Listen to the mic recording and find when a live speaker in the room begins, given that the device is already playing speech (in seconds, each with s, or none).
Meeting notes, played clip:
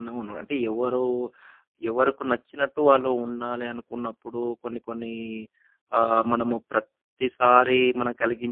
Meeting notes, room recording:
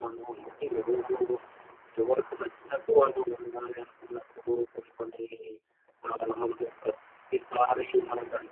none